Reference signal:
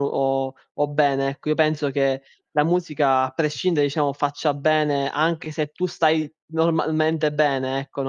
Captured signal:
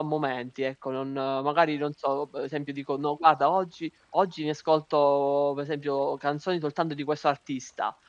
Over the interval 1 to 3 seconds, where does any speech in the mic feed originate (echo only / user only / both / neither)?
user only